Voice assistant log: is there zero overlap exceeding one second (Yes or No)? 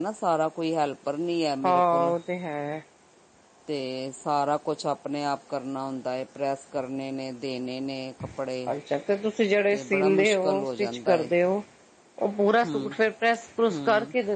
No